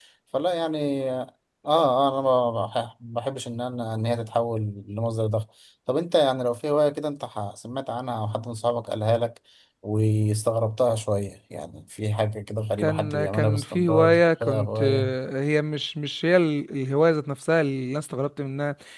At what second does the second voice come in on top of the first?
12.8 s

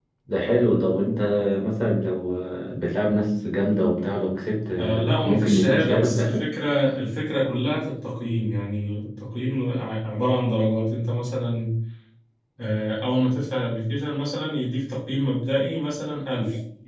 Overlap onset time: 4.8 s

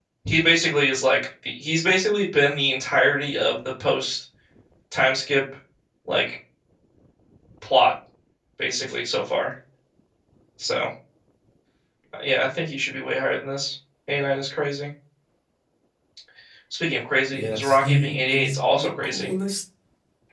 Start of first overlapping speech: 17.3 s

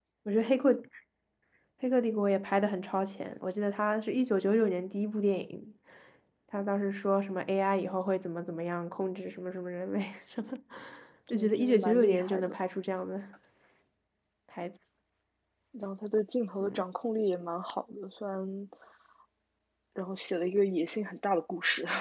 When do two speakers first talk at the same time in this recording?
11.3 s

